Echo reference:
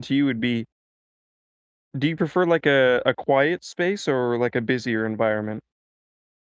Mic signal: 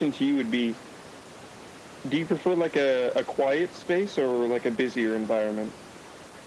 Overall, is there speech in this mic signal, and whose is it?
echo only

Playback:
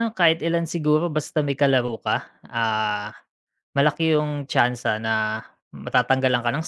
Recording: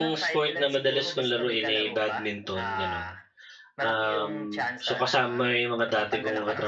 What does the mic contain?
both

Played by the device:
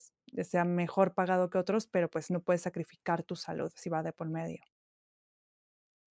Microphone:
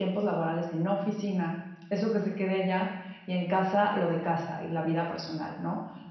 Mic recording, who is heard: user only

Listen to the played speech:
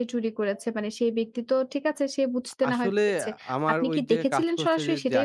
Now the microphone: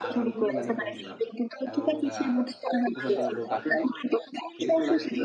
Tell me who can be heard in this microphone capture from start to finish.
both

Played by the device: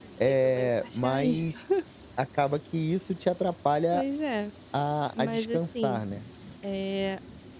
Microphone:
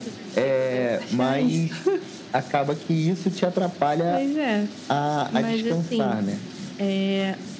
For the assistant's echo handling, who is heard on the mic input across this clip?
echo only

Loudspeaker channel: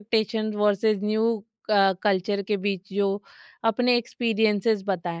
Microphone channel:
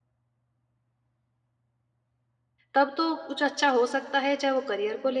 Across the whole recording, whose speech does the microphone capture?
user only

